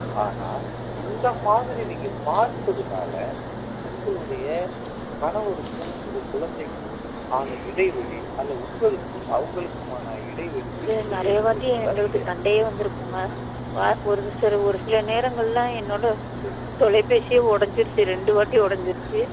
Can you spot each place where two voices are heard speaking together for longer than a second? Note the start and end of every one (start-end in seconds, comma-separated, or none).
10.8-12.3